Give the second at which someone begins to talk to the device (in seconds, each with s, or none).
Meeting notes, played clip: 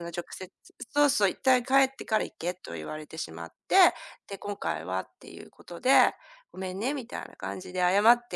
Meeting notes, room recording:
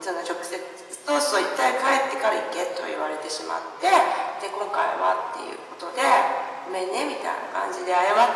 none